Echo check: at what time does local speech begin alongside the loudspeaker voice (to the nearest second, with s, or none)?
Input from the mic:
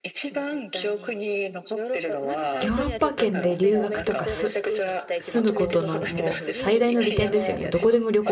3 s